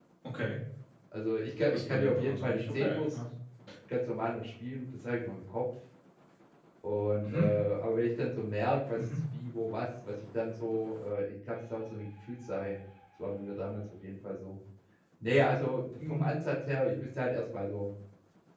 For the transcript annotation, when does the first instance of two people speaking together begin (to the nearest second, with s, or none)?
2 s